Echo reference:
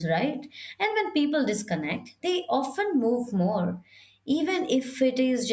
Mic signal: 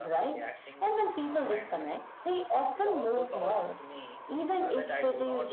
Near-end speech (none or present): present